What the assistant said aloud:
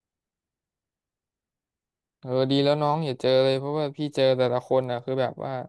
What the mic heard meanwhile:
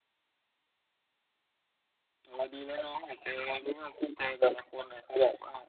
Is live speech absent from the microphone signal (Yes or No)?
Yes